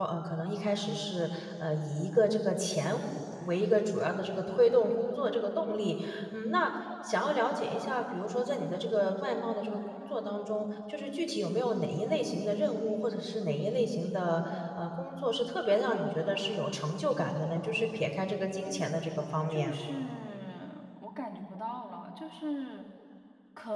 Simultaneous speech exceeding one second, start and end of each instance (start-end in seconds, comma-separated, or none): none